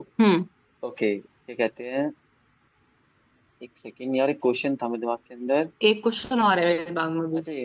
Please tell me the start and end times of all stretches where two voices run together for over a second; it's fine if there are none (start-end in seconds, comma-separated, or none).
none